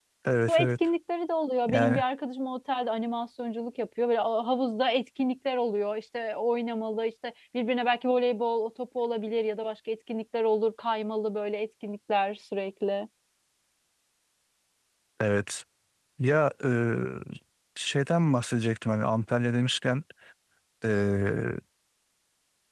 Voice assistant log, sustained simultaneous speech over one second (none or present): none